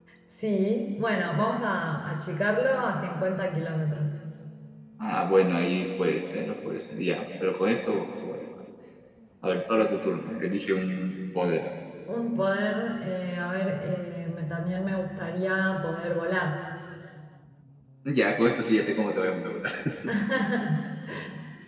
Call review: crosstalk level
none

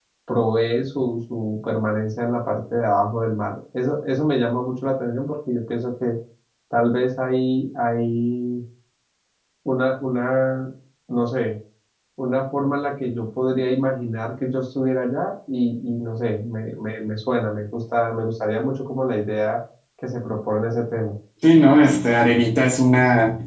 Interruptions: none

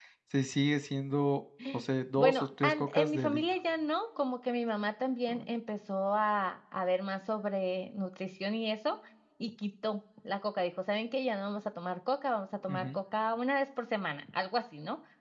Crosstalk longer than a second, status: present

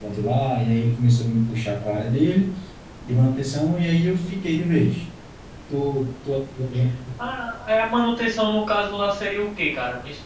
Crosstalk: none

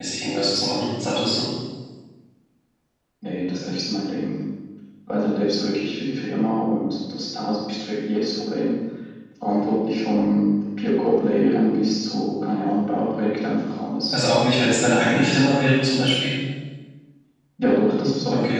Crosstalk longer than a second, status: none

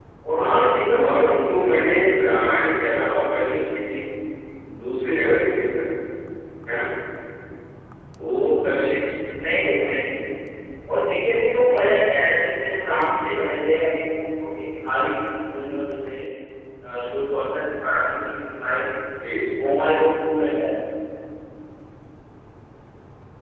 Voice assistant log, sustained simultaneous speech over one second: present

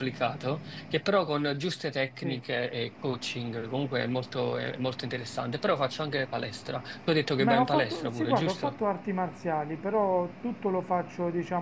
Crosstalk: present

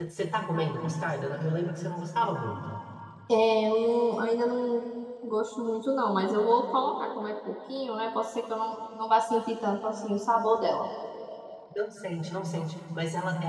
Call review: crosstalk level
none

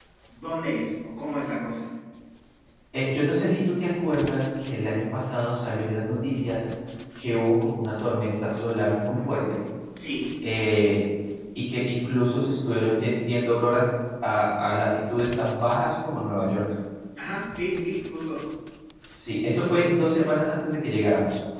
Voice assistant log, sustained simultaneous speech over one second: none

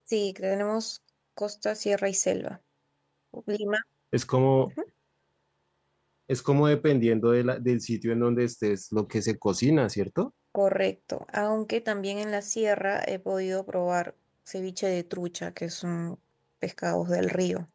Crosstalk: none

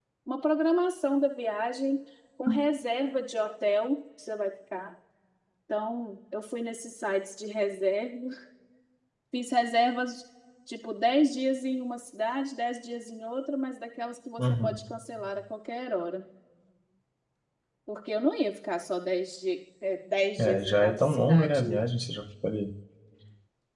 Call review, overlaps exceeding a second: present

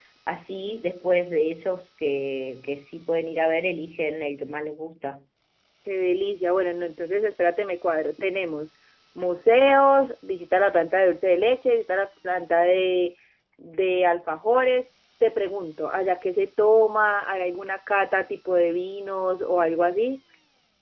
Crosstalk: none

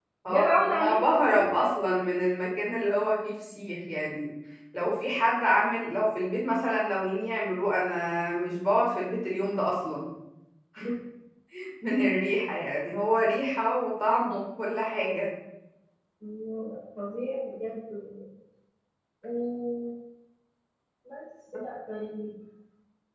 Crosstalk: present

